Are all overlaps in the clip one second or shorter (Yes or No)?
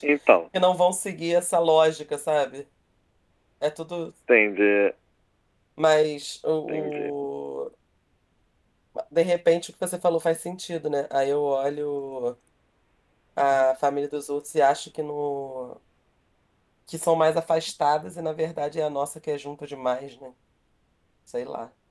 Yes